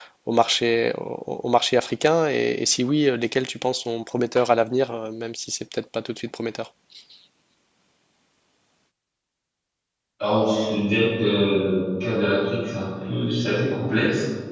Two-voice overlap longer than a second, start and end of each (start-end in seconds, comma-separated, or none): none